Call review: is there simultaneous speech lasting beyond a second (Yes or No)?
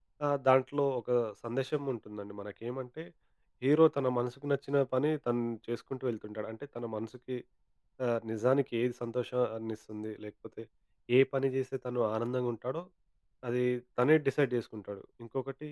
No